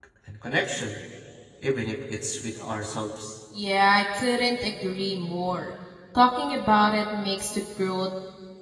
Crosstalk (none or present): none